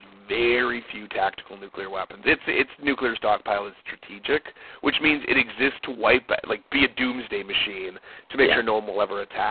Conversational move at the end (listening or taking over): listening